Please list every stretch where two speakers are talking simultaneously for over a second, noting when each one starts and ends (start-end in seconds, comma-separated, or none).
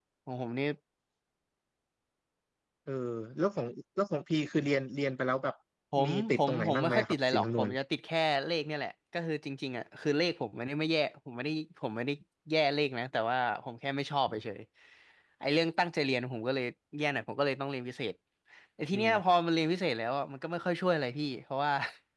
6.0-7.7